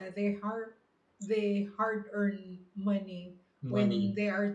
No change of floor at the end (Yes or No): Yes